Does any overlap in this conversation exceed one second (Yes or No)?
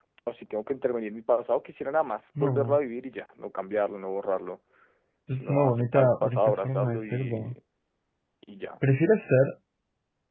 Yes